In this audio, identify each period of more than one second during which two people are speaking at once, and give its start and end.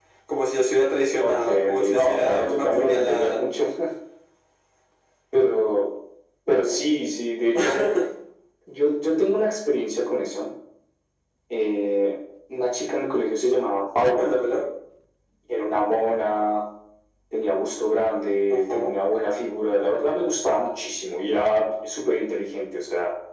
1.2-3.4

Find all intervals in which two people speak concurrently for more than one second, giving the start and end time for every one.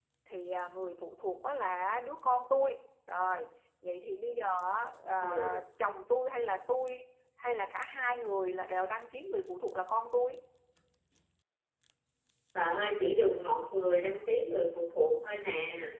none

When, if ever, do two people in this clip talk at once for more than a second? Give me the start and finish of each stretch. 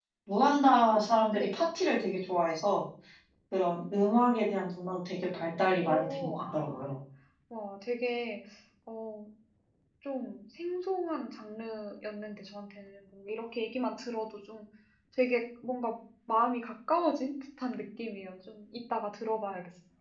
5.6-6.9

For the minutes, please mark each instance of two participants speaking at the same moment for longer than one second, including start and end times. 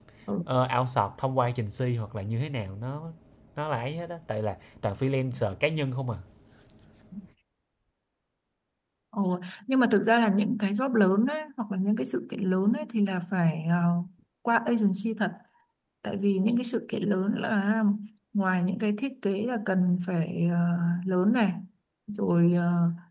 none

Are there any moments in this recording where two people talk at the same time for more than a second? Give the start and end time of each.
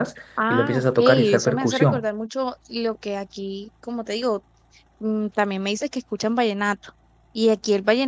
0.5-2.0

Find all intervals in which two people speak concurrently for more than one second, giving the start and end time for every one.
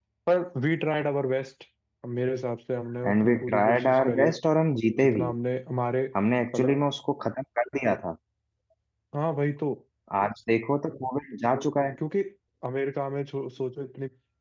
3.0-4.3

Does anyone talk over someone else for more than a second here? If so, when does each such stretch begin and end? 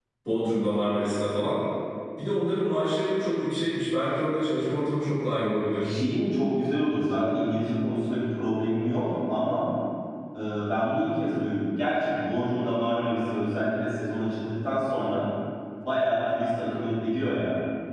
none

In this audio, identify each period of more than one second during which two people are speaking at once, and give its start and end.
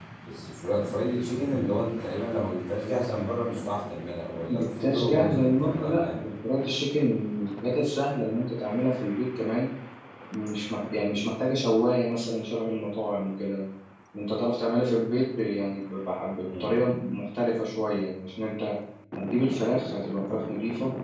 4.5-6.0

